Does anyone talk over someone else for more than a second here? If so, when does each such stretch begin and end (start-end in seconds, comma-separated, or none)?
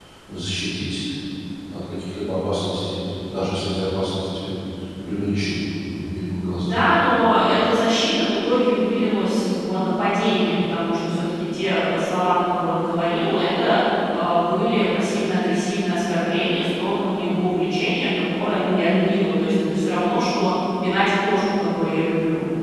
none